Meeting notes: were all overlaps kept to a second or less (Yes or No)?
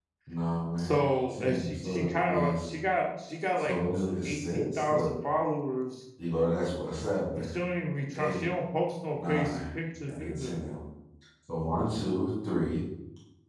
No